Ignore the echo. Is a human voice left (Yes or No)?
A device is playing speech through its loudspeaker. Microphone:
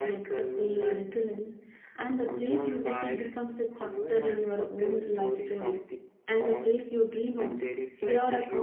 Yes